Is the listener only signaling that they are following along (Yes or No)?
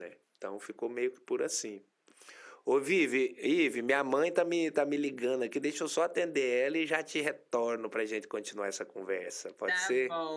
No